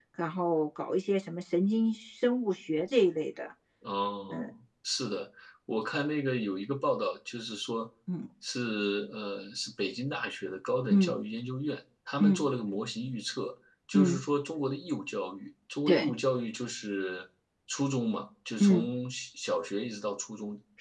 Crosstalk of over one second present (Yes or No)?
No